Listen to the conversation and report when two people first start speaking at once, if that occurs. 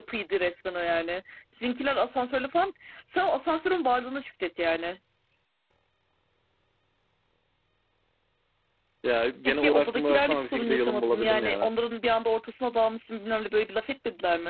9.4 s

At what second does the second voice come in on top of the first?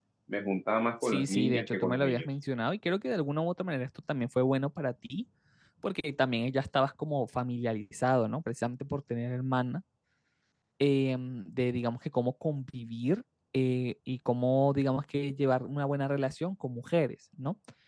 1.0 s

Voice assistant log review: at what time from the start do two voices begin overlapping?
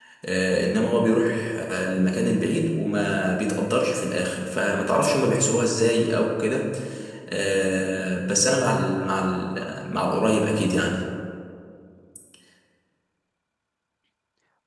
none

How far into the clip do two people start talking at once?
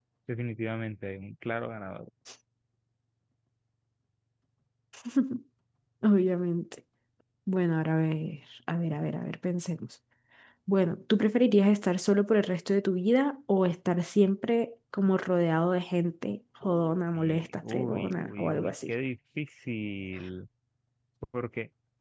16.6 s

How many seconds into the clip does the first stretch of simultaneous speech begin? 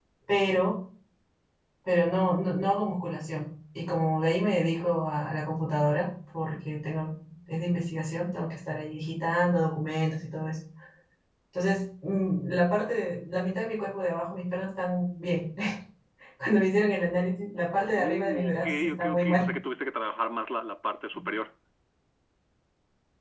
17.9 s

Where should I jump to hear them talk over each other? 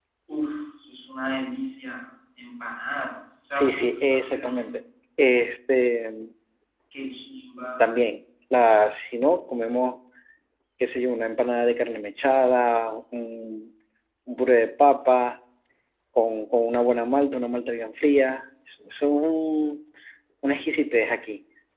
3.5 s

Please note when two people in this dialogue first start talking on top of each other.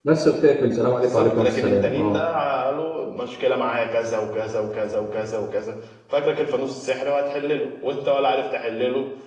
1.0 s

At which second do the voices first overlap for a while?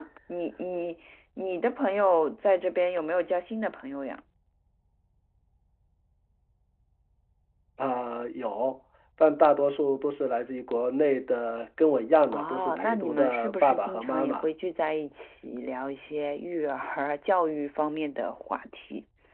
12.3 s

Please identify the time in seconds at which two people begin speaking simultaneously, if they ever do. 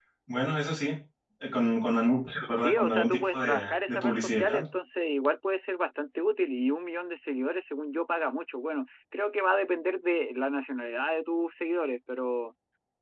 2.5 s

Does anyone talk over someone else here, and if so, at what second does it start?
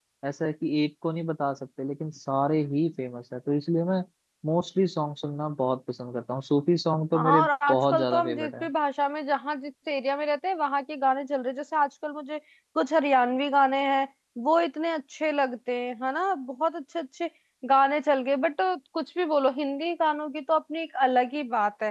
7.1 s

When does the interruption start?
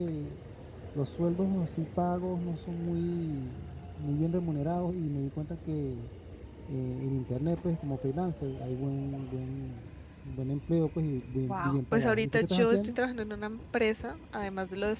11.4 s

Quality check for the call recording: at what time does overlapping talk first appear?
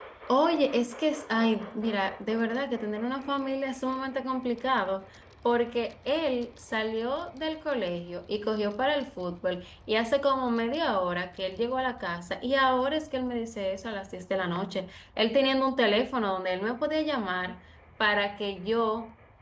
none

